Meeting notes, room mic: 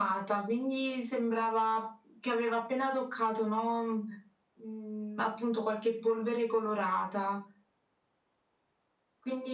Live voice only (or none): none